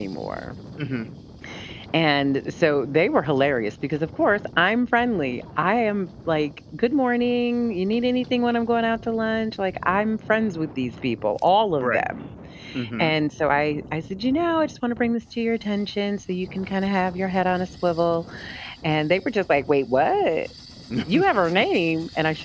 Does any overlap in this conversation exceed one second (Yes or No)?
No